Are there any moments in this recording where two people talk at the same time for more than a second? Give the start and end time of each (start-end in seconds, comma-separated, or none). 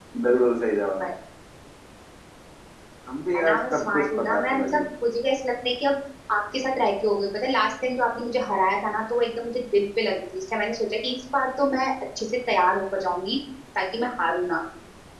3.4-4.8